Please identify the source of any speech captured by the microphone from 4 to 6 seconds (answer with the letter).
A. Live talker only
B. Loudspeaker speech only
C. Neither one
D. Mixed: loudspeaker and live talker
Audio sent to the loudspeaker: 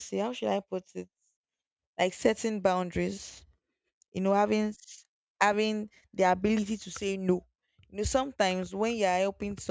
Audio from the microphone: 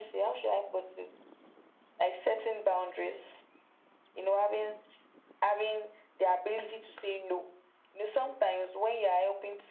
B